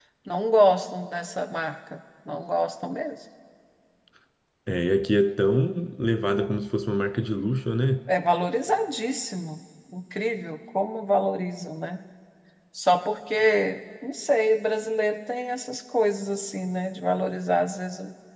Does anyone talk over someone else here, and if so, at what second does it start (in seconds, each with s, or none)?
none